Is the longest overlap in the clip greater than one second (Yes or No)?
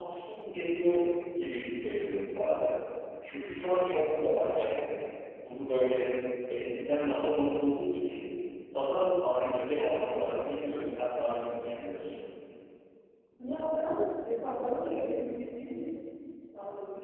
No